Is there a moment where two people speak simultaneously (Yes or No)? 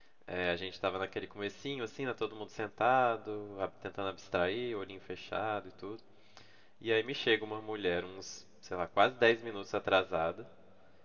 No